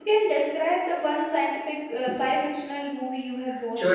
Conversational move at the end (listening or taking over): taking over